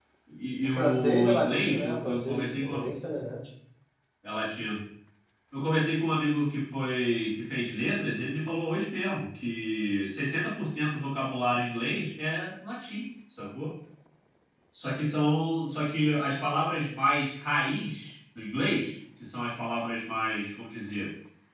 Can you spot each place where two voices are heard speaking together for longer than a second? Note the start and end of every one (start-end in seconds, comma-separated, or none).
0.6-2.9